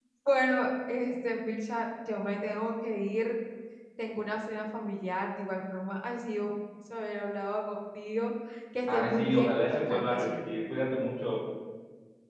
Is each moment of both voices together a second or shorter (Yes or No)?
No